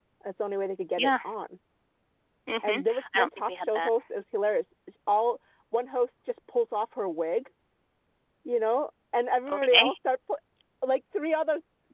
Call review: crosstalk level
present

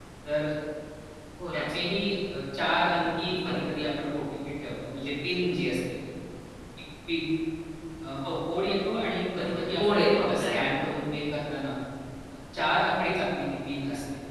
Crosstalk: present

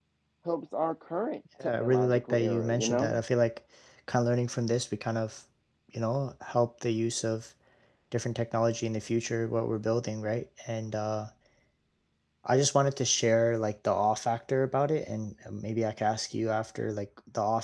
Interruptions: present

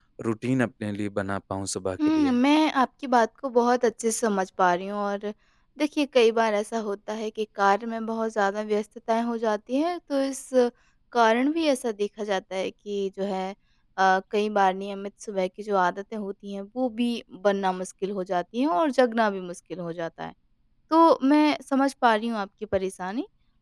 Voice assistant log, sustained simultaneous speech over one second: none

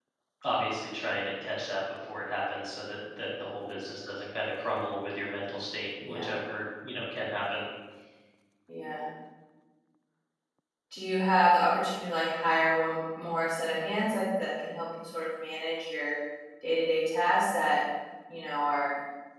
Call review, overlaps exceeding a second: none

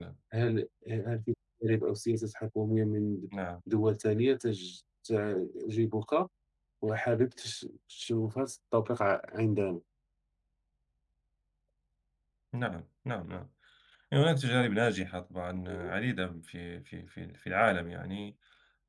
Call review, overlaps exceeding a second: none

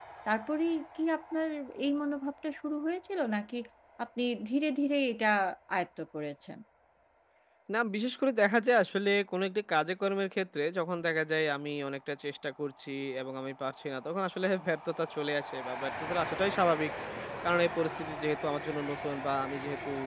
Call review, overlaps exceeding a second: none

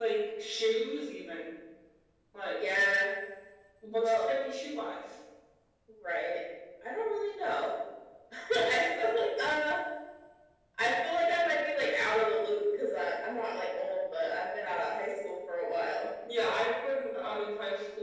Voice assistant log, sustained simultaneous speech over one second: none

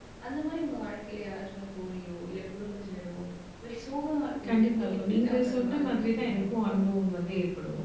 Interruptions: present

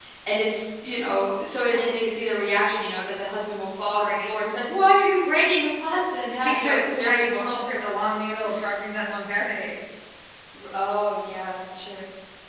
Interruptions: present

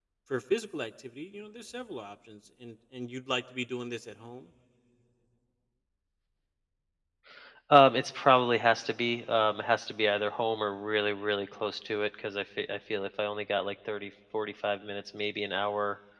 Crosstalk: none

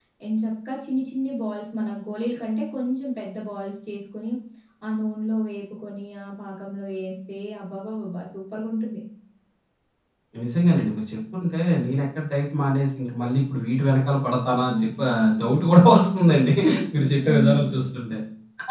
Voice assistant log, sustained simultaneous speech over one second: present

